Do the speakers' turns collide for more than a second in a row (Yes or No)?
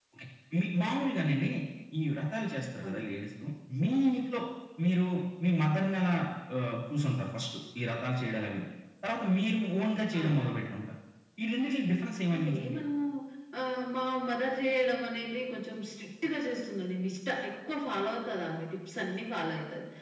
No